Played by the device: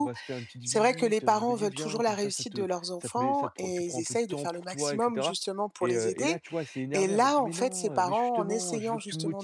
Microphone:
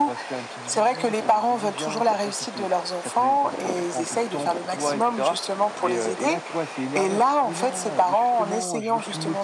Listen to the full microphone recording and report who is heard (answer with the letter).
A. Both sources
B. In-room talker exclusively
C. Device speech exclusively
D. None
C